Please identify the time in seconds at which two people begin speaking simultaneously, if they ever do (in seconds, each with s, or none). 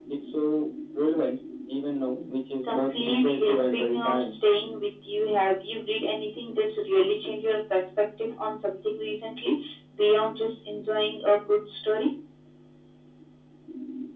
2.7 s